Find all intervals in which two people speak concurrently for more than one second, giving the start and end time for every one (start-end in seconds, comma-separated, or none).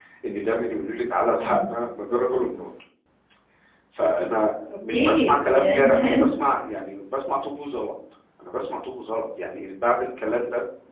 4.9-6.3